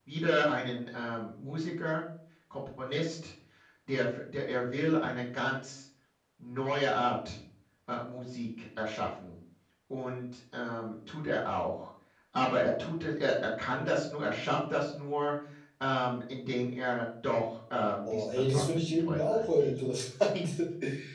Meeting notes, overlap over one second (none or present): present